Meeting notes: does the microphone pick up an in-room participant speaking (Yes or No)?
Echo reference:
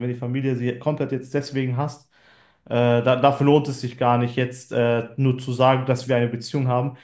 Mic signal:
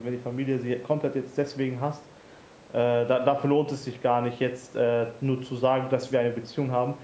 No